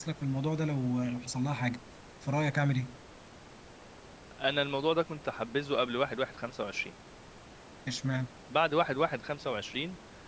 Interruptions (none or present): none